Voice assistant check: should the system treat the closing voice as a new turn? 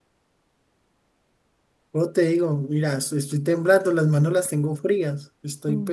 Yes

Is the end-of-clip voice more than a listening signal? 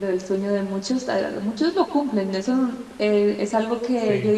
No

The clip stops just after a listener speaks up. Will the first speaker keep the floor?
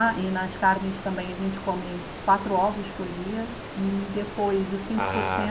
Yes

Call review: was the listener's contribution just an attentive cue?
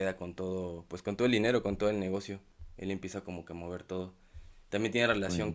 Yes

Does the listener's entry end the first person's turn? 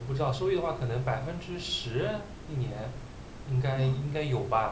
No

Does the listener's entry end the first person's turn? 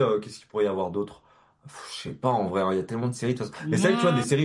No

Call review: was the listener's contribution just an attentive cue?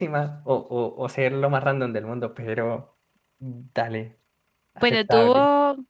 No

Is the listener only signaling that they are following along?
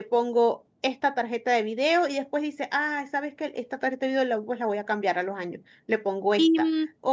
Yes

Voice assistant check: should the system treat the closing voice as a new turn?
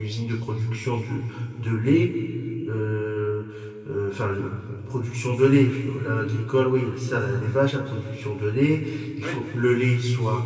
No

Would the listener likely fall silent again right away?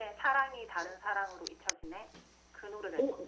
No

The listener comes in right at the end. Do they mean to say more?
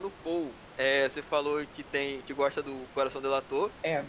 No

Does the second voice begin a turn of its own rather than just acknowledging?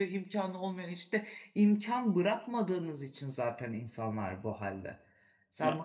No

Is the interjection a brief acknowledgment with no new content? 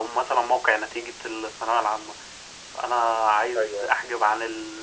Yes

